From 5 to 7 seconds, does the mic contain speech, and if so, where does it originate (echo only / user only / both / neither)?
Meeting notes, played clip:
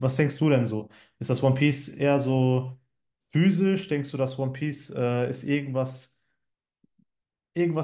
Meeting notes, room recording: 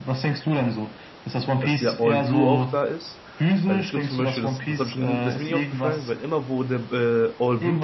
both